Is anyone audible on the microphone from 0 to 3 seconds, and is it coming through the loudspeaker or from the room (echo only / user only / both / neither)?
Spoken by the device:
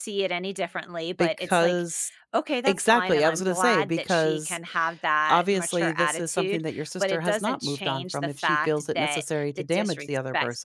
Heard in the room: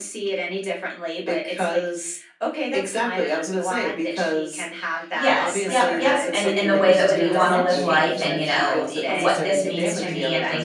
echo only